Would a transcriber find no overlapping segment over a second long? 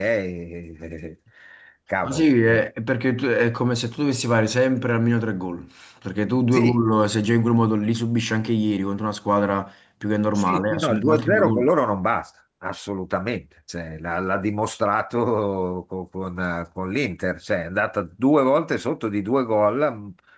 No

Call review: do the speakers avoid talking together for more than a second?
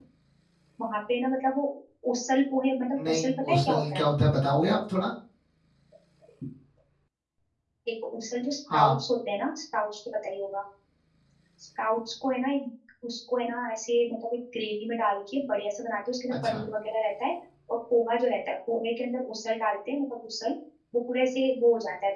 No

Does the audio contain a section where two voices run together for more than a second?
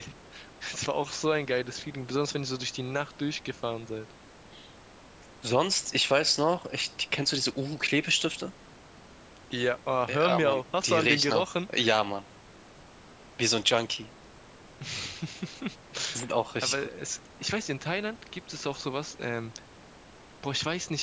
Yes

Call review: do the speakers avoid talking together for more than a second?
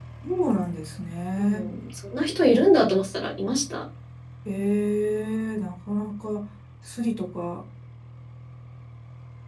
Yes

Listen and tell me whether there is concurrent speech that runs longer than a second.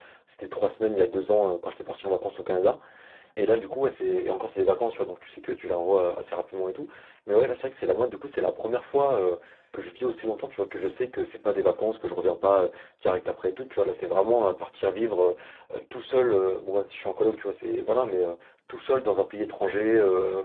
No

